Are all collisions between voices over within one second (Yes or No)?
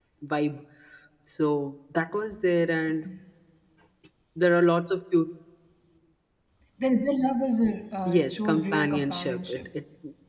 No